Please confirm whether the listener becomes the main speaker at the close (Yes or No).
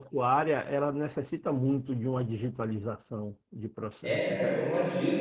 Yes